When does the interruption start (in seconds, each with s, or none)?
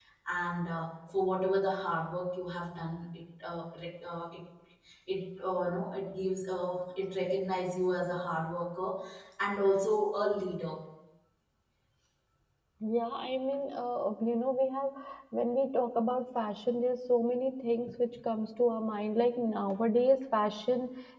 none